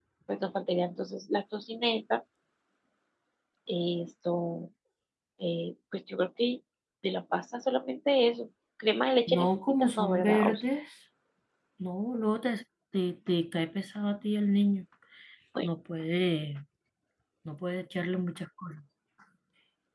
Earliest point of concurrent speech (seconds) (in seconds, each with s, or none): 9.3 s